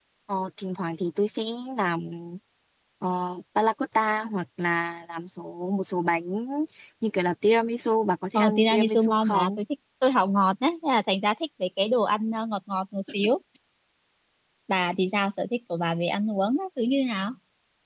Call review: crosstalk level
present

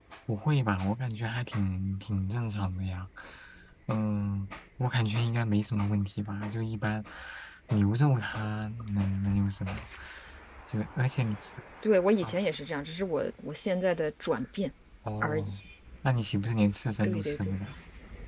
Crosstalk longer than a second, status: none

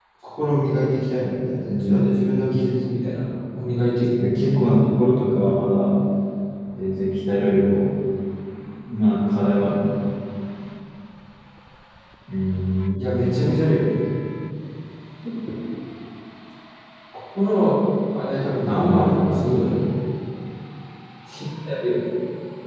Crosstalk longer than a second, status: present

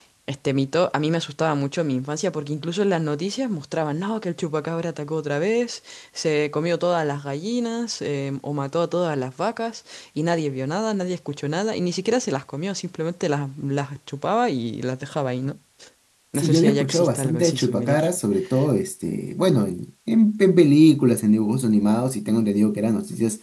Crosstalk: present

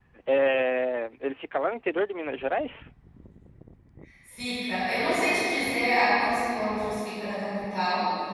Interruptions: none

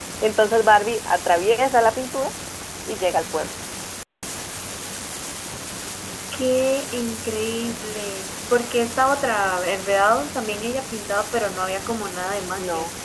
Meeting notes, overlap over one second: none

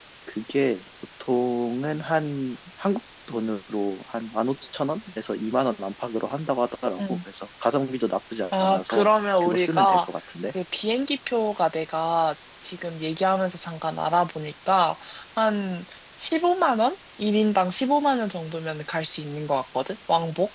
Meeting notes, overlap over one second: present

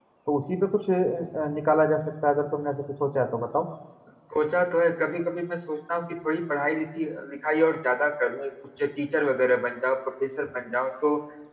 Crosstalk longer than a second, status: none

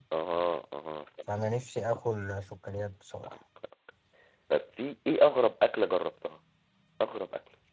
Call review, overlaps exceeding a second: none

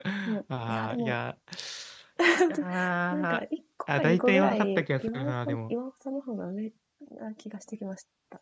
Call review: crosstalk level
present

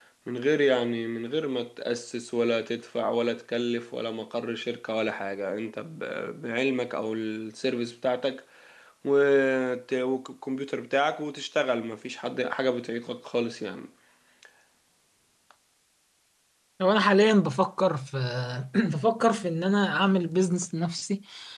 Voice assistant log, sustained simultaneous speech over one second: none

